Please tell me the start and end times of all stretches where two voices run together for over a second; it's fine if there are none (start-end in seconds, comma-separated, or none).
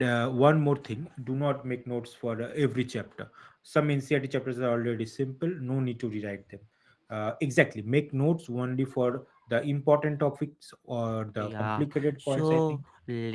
11.4-12.8